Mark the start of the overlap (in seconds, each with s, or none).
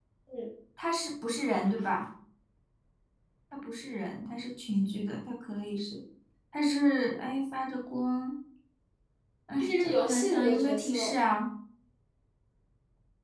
9.6 s